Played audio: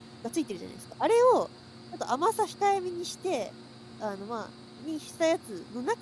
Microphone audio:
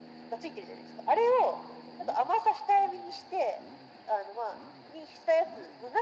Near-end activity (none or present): none